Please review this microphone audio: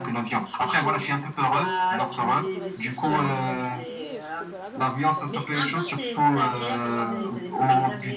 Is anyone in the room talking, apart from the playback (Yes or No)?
Yes